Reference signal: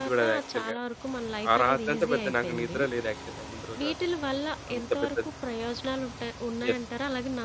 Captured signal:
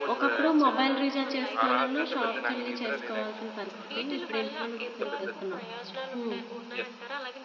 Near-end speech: present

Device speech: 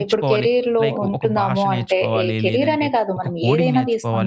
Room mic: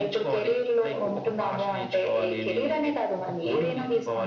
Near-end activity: none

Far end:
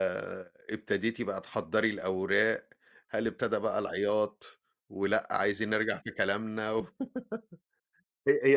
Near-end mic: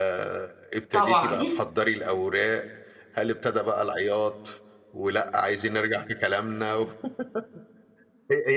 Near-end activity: present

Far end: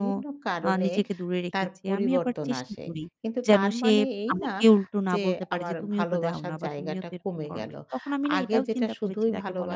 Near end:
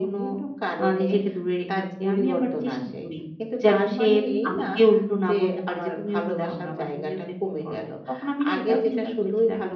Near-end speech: none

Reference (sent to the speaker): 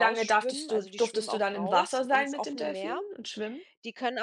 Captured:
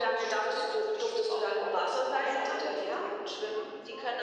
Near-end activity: present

